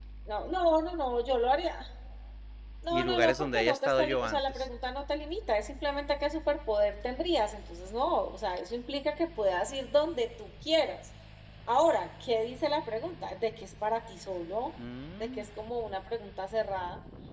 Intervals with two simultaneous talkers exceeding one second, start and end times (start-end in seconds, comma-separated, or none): 2.9-4.6